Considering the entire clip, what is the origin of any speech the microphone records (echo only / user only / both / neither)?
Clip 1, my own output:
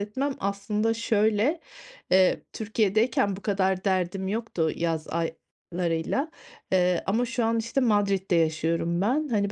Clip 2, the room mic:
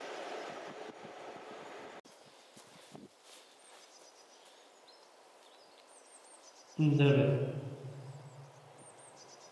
user only